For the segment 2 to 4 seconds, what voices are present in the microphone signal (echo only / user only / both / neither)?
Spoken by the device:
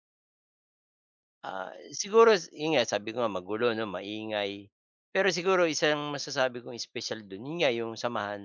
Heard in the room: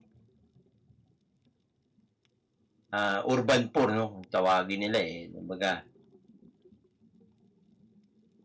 user only